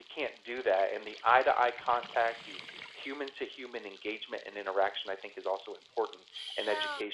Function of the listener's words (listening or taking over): listening